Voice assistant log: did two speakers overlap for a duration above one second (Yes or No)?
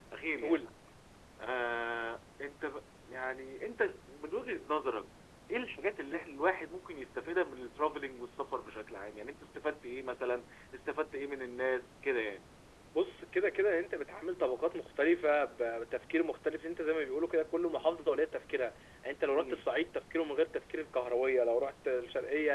No